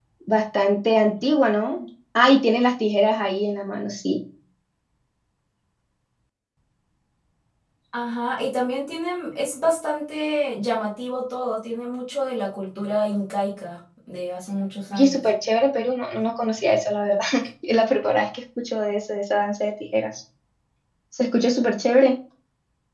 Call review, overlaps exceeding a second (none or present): none